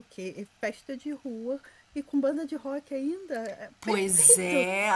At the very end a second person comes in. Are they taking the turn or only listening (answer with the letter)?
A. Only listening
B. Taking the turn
B